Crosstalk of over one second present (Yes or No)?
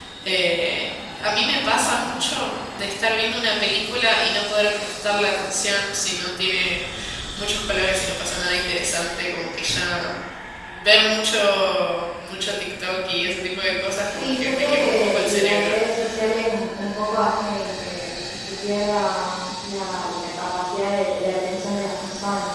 Yes